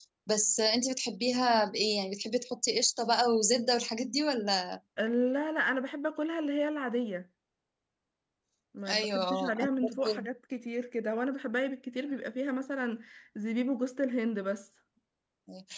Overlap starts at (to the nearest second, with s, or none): 9 s